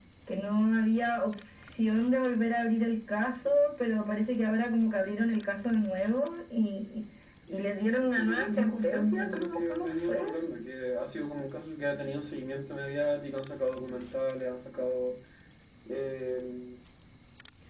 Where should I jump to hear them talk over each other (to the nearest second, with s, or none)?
8 s